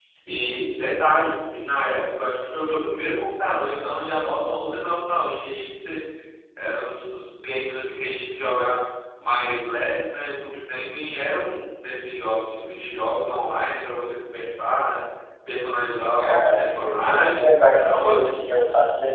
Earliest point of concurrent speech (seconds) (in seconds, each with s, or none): 16.2 s